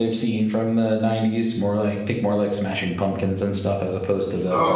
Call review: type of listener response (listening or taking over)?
taking over